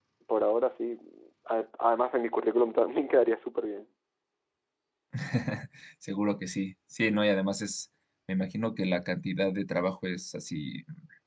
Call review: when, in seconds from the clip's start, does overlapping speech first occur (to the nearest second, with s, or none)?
none